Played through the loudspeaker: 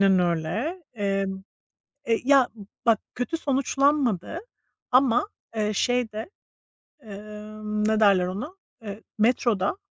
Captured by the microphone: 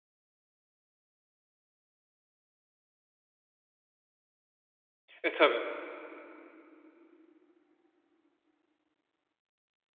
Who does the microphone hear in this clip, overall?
user only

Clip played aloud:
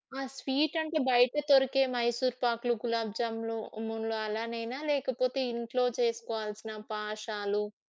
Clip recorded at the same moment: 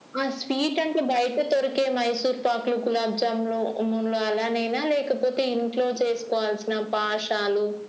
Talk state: echo only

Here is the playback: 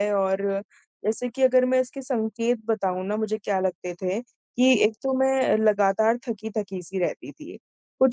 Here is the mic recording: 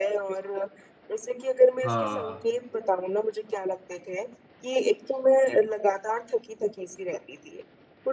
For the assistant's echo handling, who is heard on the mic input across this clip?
both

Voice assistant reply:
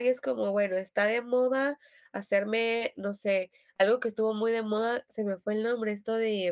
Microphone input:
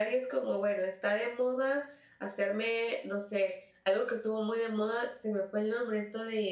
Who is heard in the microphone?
echo only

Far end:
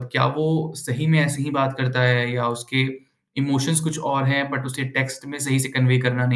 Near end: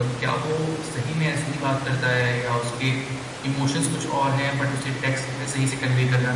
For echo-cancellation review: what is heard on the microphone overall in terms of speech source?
echo only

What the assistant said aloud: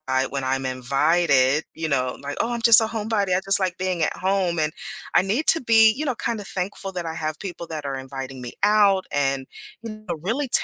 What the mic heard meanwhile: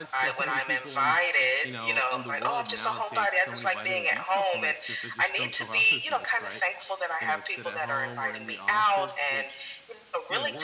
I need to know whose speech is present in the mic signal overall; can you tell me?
both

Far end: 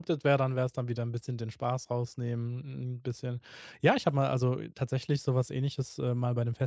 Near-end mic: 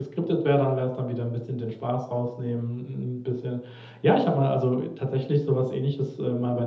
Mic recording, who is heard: echo only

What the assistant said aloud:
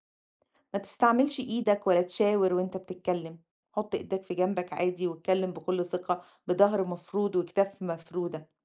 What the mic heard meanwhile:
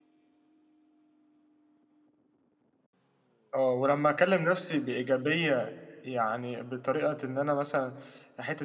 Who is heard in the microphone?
user only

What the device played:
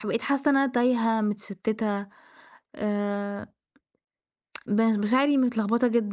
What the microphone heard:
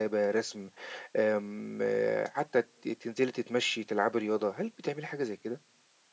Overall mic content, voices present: user only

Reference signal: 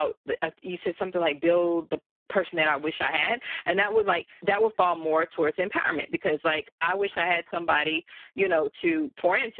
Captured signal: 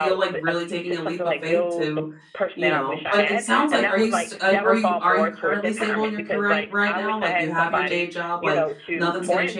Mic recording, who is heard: both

